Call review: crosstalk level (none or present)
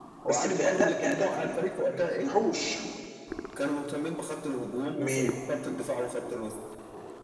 present